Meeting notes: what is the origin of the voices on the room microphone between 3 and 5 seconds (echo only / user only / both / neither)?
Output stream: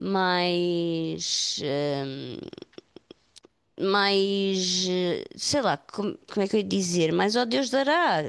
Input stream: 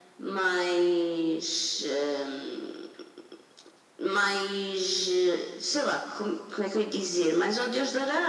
echo only